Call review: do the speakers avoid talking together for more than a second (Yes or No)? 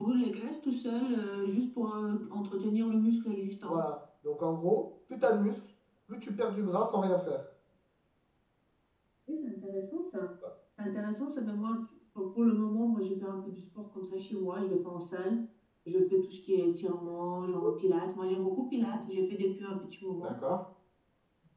Yes